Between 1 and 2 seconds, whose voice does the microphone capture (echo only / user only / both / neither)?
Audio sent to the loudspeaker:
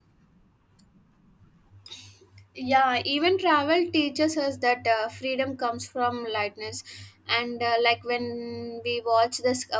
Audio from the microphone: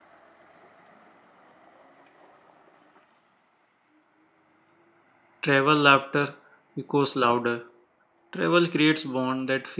neither